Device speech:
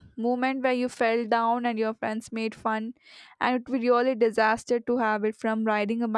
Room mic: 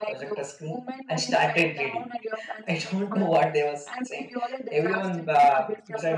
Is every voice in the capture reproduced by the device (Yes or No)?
No